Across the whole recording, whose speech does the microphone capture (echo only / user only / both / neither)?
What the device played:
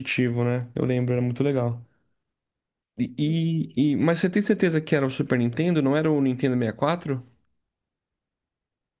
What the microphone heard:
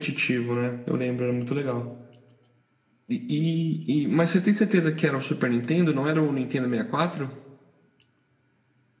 echo only